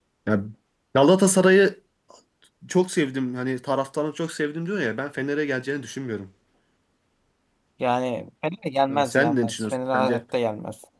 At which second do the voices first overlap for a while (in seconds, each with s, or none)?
8.9 s